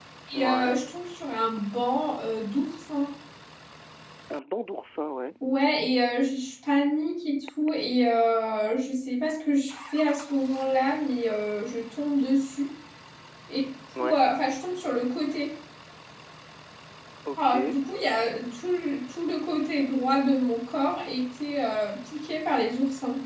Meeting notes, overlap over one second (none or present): none